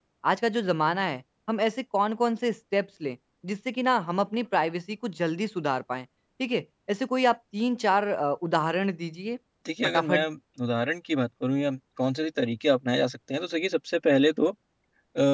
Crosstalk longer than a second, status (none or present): none